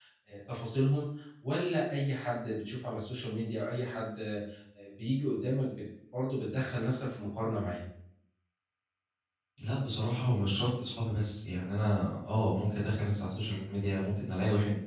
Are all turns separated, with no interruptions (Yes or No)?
Yes